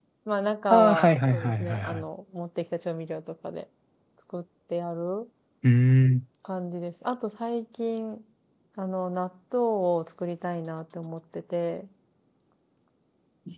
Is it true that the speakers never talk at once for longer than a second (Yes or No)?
No